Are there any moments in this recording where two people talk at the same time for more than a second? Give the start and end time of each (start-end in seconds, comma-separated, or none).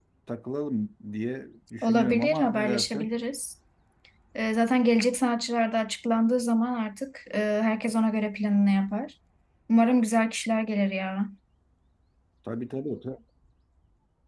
1.8-3.1